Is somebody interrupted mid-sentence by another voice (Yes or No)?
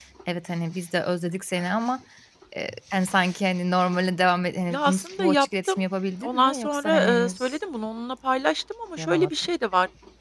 Yes